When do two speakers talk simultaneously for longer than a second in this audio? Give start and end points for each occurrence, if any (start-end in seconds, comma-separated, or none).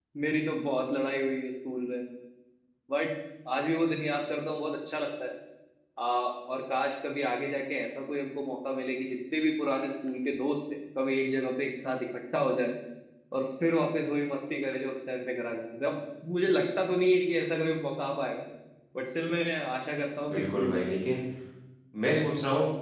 none